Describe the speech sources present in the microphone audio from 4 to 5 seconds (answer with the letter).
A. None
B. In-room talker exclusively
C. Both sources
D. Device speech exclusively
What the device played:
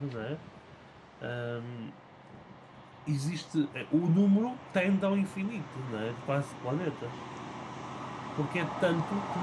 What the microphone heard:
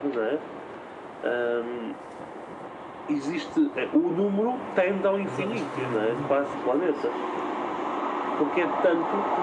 D